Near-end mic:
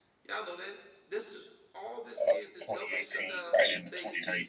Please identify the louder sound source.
user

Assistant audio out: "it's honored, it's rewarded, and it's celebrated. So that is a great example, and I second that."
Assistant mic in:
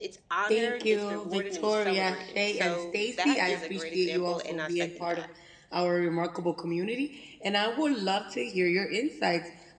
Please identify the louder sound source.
user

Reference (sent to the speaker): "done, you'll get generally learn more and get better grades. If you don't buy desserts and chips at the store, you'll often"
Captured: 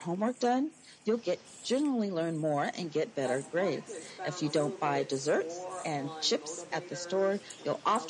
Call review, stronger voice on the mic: echo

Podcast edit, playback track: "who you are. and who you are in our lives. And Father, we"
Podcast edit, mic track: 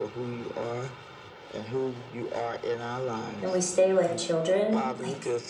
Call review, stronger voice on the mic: user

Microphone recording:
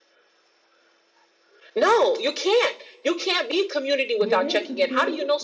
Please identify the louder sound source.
echo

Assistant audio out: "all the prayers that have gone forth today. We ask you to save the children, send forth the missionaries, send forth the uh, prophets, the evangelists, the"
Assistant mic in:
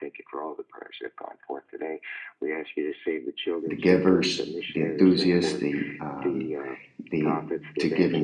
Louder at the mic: user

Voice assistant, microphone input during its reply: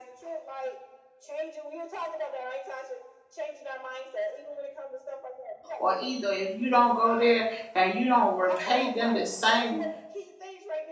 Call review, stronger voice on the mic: user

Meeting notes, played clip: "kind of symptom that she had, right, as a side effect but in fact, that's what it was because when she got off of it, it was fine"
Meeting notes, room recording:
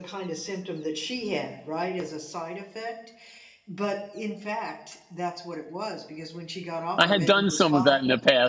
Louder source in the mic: user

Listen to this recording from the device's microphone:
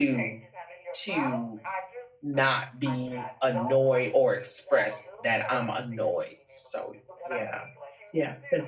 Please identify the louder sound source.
user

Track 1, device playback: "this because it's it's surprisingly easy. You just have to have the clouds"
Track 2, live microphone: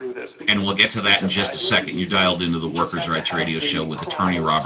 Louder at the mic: user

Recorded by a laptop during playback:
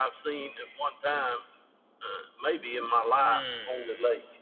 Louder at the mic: echo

